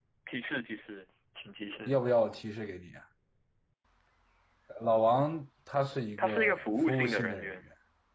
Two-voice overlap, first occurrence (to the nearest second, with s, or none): 6 s